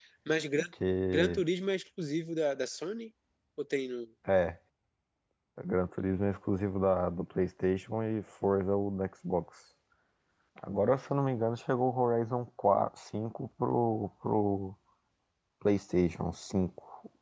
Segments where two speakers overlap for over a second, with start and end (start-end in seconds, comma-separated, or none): none